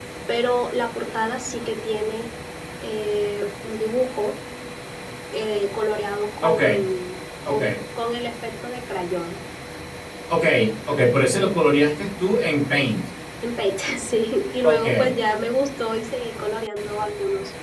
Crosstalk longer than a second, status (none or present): none